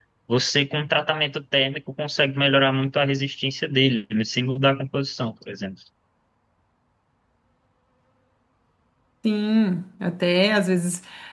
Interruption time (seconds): none

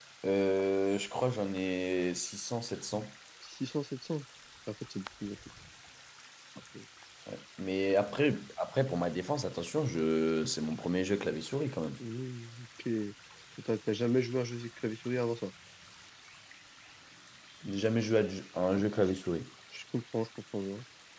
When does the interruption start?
none

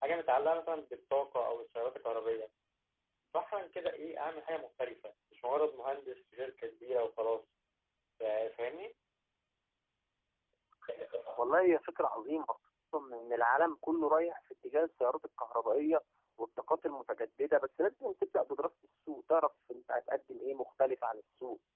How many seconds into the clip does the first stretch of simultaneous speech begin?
none

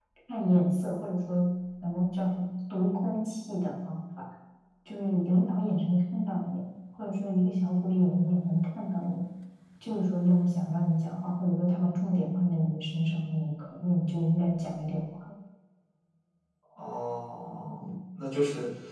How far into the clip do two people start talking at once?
none

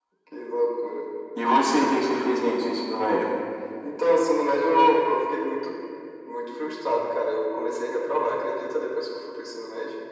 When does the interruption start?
none

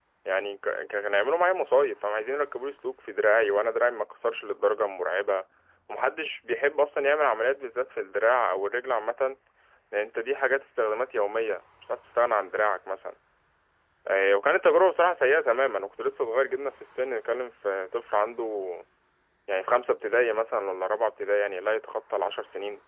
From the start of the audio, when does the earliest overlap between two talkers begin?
none

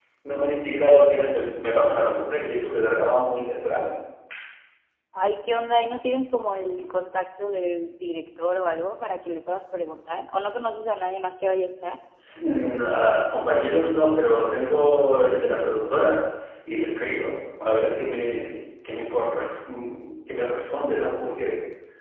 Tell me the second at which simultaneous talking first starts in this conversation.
none

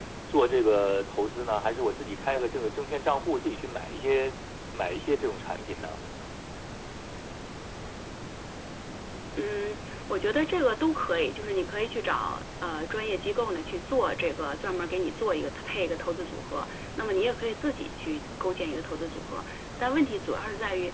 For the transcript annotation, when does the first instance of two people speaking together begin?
none

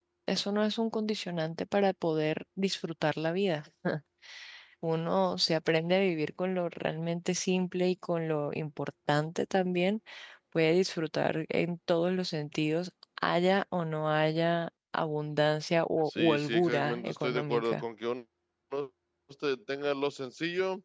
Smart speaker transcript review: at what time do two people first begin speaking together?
16 s

